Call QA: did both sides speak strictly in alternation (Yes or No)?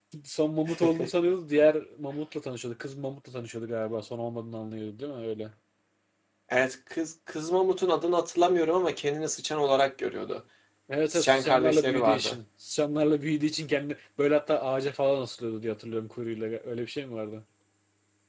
No